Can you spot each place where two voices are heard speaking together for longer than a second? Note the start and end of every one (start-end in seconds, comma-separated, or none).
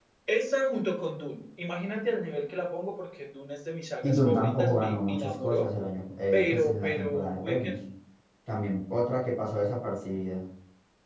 4.0-5.7, 6.3-7.7